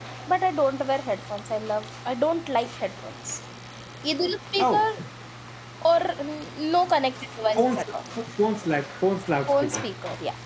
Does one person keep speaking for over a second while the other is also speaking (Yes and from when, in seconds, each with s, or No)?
No